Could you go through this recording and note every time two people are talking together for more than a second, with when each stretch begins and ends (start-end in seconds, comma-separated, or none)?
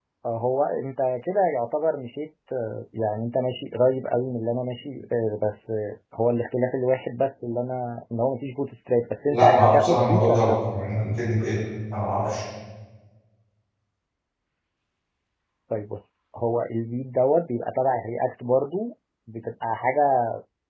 9.3-10.6